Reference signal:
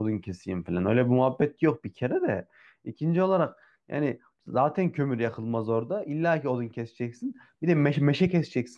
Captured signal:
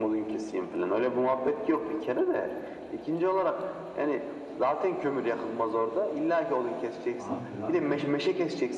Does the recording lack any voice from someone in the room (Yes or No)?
No